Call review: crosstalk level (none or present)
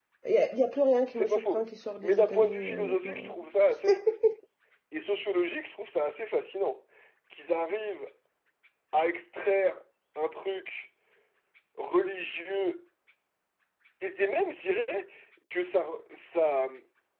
present